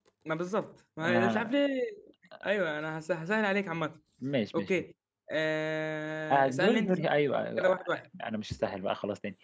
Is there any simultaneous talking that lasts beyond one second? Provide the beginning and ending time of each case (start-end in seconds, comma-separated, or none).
6.3-7.8